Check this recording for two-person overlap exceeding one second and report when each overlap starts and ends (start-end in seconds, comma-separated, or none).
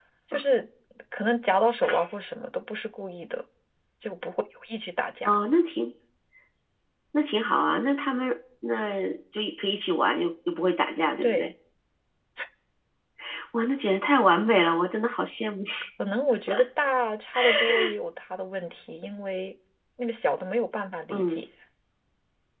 none